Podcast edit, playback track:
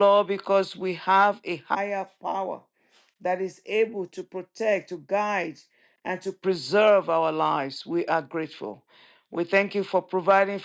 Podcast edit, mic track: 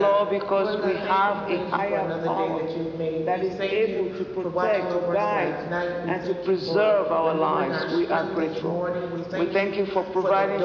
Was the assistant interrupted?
Yes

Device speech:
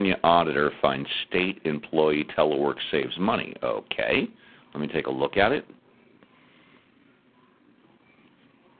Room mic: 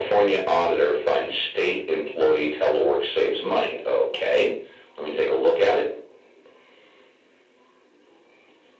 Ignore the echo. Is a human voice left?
No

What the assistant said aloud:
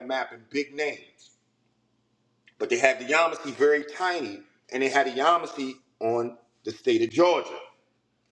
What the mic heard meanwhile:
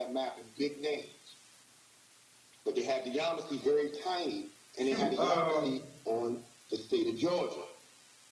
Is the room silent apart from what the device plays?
No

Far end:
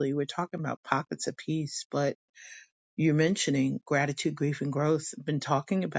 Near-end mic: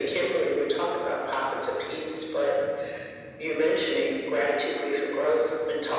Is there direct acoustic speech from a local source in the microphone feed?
No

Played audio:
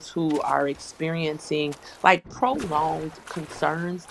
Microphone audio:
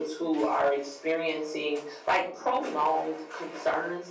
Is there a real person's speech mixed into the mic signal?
No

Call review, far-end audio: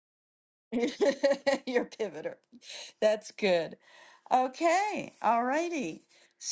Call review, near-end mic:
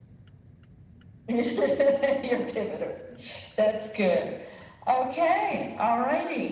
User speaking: No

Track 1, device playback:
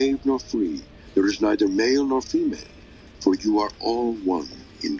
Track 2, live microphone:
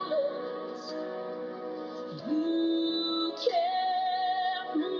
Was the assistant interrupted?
Yes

